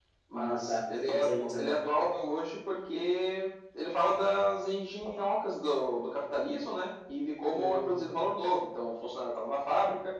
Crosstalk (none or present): present